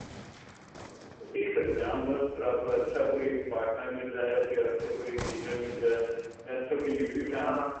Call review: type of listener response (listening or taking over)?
listening